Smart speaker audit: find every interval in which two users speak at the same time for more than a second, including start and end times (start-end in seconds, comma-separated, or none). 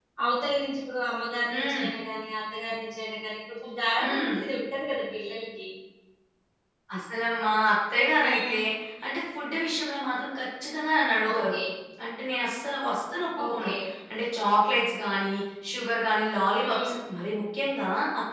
none